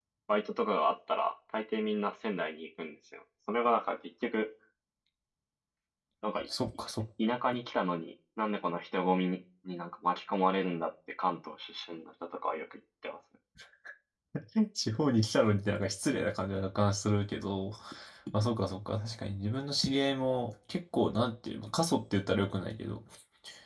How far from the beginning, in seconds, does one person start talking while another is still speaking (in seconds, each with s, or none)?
none